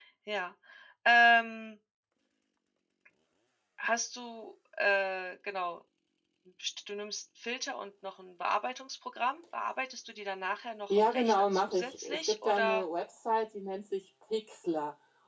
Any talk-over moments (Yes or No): Yes